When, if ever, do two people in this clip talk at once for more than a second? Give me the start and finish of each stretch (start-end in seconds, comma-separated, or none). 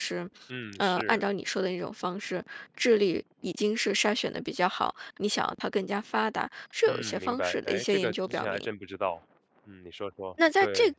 6.9-8.7